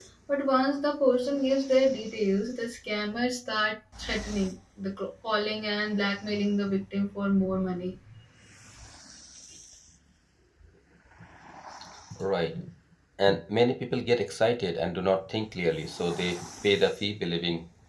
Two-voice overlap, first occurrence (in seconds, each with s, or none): none